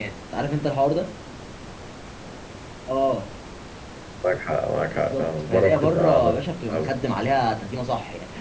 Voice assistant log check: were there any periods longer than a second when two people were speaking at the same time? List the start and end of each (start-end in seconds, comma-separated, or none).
4.9-6.2